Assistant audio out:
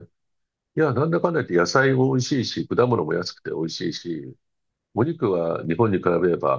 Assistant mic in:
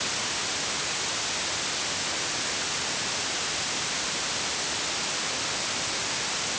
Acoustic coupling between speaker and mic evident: No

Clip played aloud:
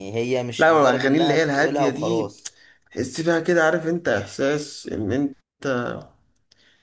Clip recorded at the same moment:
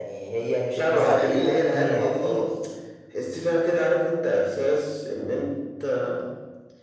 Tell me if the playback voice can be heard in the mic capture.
Yes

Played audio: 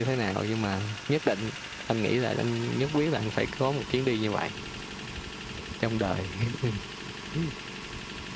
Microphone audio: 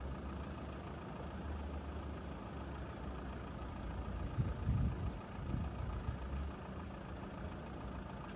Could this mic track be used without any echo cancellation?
Yes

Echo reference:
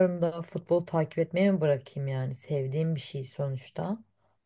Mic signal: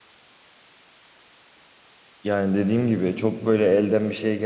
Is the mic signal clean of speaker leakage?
Yes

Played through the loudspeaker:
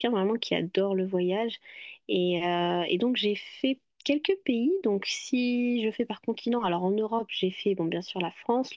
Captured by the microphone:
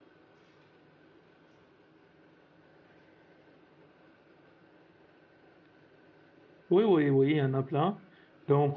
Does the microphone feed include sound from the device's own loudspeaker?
No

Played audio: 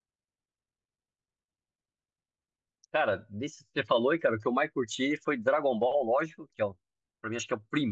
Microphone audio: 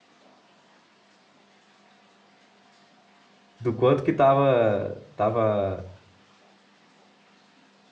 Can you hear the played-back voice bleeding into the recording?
No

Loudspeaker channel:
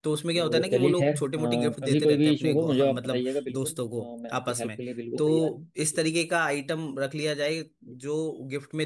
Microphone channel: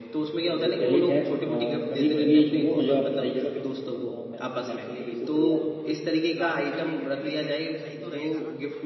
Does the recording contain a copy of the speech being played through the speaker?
Yes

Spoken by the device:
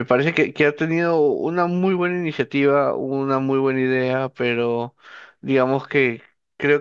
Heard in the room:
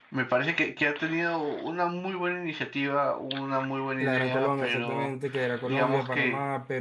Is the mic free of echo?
No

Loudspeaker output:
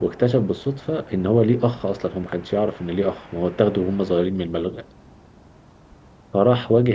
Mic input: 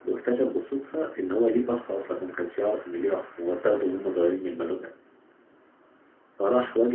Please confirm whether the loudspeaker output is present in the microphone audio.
Yes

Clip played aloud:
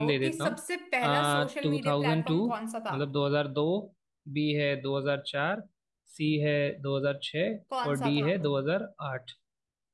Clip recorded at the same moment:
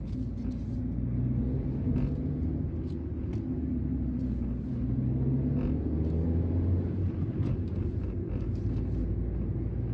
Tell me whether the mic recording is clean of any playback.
Yes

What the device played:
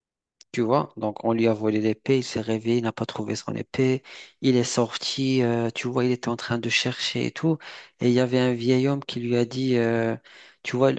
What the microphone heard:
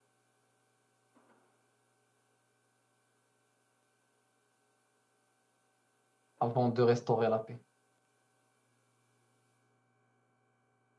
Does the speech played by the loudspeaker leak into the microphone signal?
No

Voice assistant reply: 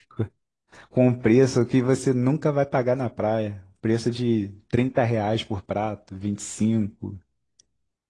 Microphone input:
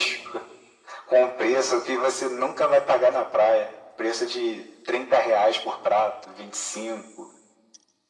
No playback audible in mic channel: No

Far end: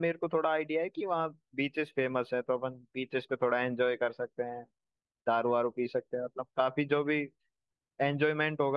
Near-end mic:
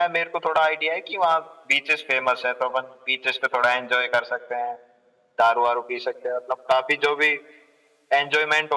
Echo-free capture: No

